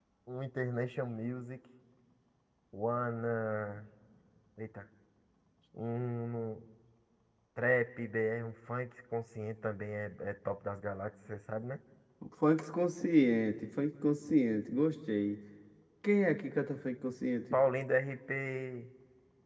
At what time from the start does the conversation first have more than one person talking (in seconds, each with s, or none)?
none